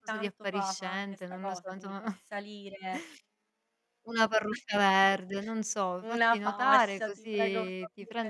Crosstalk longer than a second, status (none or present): present